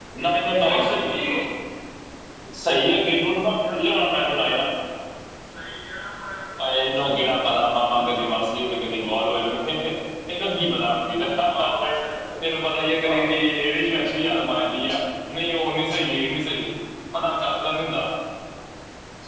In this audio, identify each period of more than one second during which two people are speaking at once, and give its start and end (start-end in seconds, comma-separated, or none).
none